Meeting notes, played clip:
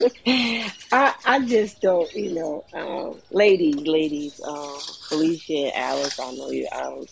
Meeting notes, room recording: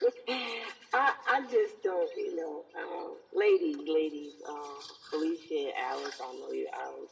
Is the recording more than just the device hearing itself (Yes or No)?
No